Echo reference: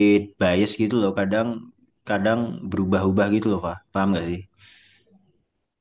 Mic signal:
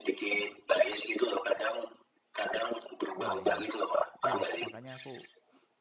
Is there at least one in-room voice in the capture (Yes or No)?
Yes